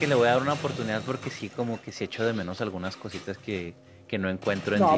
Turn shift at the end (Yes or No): Yes